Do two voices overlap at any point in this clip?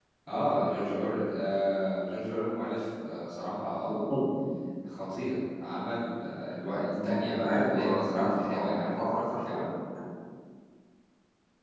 Yes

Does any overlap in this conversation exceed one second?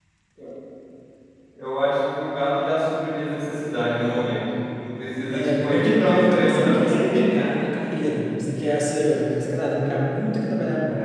Yes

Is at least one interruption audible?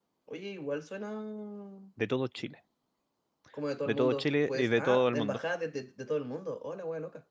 Yes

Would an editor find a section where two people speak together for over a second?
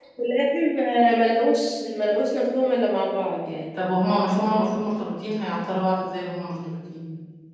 No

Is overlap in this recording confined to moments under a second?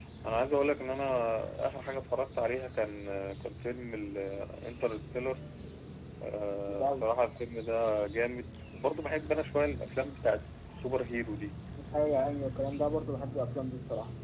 Yes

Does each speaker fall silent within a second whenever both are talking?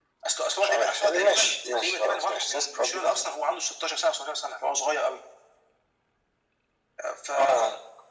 No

